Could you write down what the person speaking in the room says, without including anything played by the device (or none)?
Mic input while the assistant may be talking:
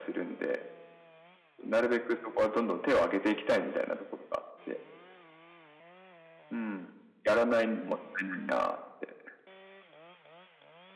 none